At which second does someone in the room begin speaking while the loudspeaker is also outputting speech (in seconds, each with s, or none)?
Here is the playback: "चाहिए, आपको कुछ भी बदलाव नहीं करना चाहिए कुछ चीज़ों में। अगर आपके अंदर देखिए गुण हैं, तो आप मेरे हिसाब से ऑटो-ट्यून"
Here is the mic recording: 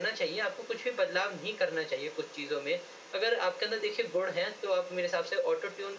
none